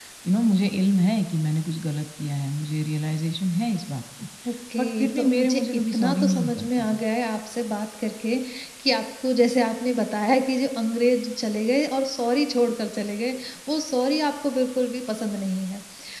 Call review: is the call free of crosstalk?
No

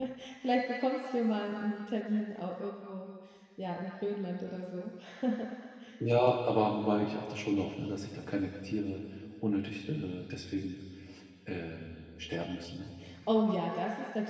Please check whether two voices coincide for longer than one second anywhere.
No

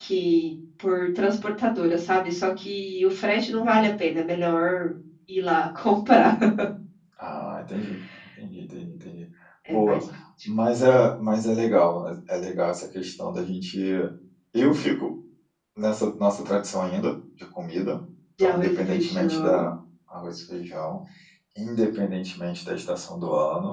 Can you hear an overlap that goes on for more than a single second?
Yes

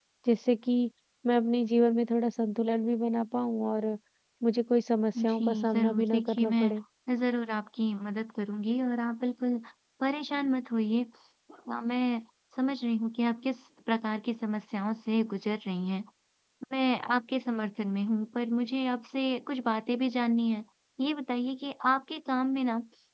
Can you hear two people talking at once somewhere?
Yes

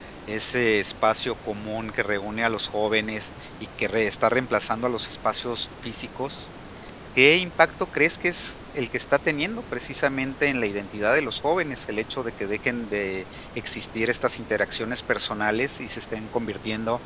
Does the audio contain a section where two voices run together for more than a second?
No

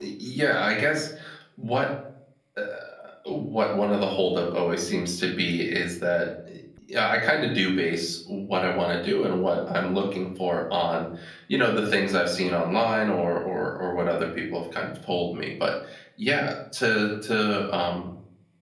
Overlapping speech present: No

